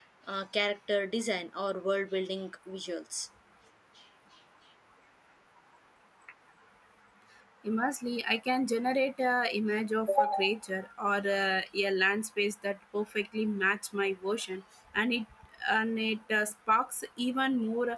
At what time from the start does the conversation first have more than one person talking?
none

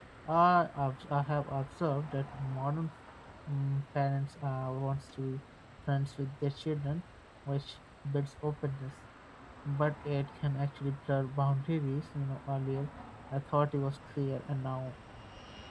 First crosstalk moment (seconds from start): none

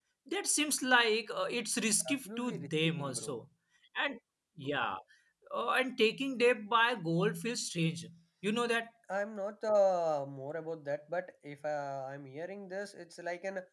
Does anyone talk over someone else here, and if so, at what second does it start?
2.0 s

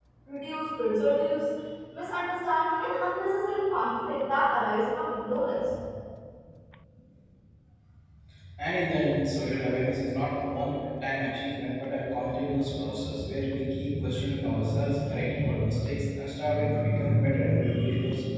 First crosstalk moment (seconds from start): none

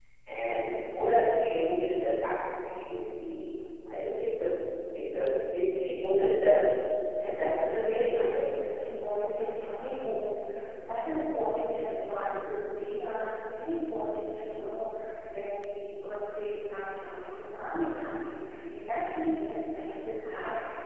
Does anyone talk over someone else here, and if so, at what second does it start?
7.3 s

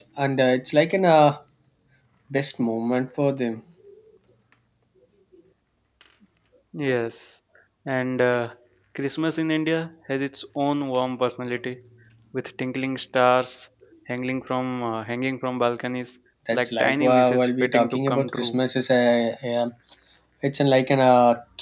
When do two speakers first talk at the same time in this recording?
16.5 s

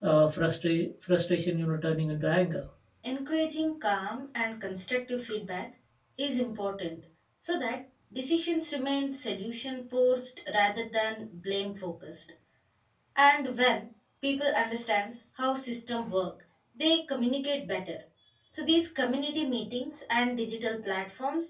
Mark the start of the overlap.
none

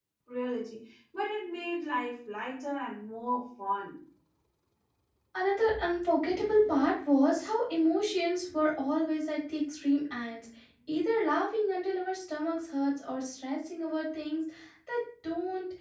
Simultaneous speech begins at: none

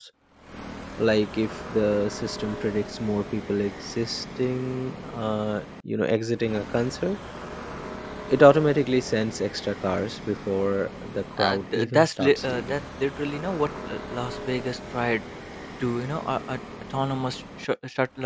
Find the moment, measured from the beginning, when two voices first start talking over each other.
11.4 s

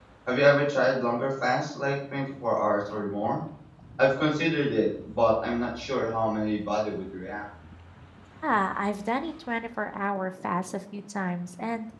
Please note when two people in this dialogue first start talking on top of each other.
none

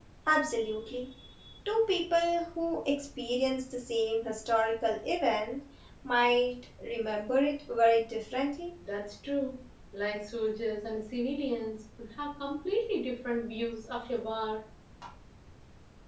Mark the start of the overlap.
none

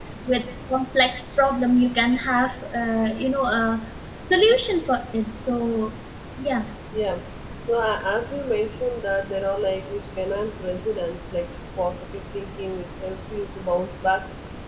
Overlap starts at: none

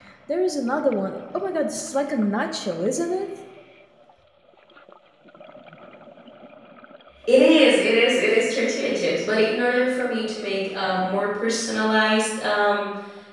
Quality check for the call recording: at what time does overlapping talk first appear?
none

